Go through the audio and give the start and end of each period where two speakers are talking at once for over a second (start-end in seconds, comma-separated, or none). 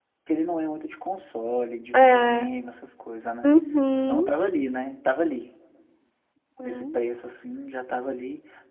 none